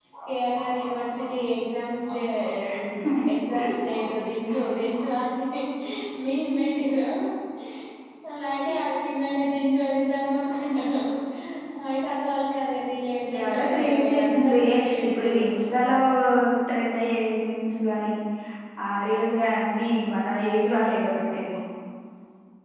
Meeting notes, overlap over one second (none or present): present